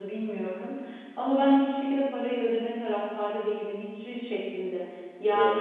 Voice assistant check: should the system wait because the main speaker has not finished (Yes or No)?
Yes